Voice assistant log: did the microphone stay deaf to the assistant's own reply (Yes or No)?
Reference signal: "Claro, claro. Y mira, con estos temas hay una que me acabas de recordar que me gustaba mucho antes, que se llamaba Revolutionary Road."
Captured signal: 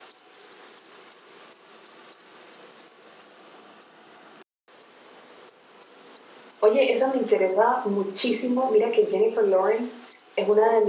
Yes